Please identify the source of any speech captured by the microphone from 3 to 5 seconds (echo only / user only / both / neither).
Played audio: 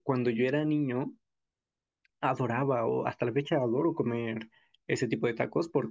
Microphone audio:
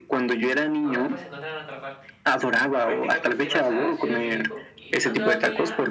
both